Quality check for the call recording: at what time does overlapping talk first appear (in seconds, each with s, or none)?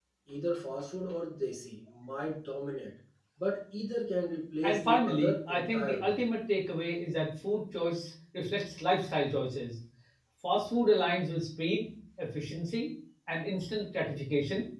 4.6 s